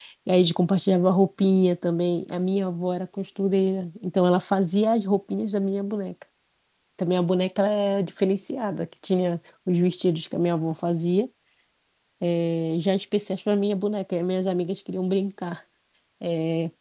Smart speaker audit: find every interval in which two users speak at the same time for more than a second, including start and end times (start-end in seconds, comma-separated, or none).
none